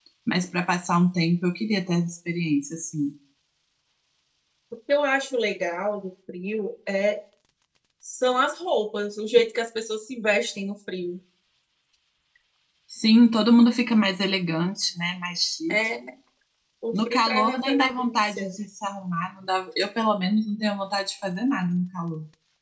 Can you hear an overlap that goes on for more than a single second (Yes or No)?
Yes